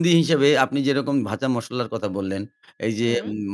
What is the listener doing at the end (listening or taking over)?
listening